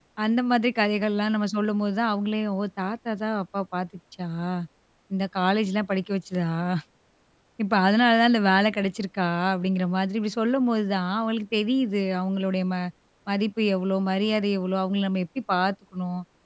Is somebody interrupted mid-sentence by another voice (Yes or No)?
No